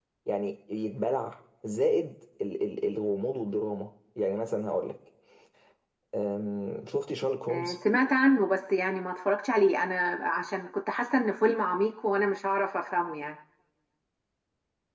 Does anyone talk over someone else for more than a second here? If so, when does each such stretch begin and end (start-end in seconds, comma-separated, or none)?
none